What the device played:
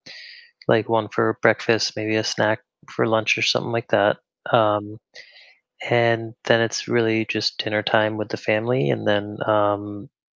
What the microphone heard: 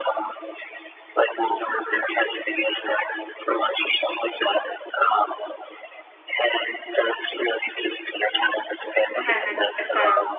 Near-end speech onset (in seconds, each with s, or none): 9.2 s